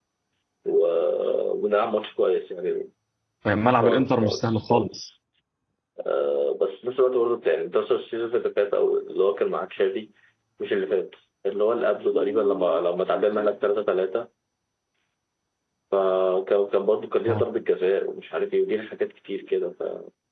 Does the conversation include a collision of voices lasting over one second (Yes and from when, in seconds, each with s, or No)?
Yes, from 3.8 s